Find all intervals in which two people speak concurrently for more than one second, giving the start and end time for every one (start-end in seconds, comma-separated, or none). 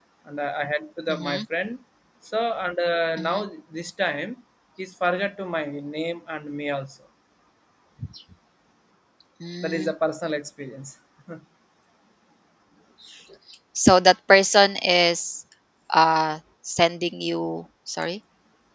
none